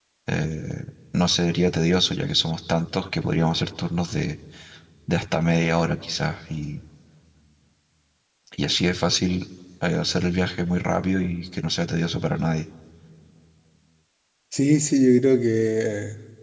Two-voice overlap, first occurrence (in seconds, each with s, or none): none